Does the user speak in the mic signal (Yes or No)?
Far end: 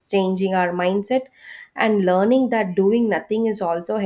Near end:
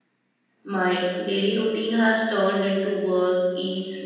Yes